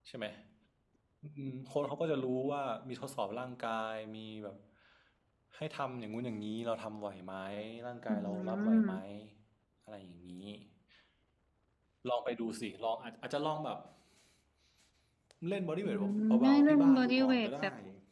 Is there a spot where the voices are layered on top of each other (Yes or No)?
Yes